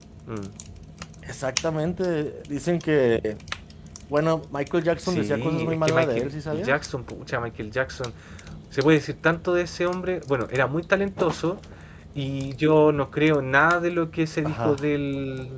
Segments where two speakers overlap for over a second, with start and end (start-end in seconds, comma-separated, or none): 5.0-6.7